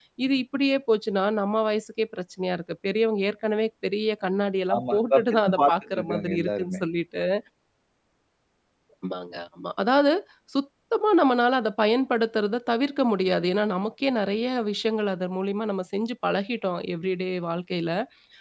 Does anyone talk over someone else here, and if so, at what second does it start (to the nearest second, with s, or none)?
5 s